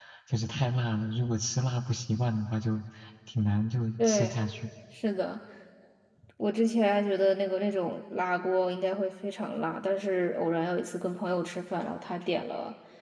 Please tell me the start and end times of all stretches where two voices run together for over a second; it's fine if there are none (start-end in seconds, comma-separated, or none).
none